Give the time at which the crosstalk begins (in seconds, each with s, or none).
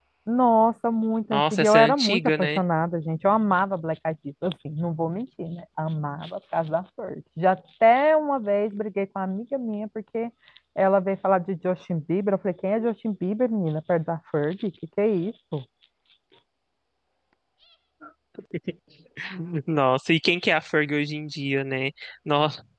1.3 s